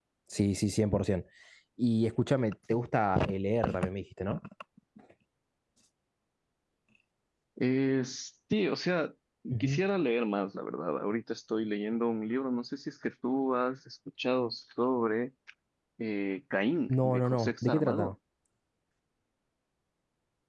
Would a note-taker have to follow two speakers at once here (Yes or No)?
Yes